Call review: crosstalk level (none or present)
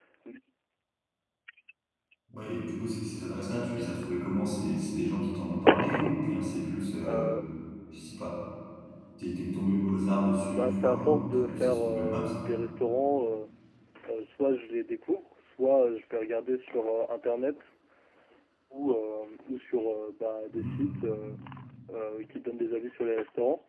present